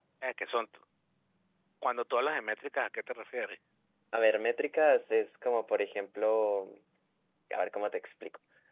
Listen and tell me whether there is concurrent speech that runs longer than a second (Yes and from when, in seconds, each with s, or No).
No